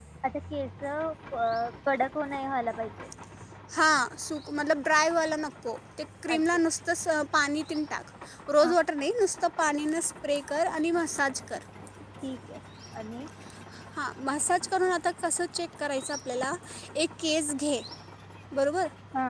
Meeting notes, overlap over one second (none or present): none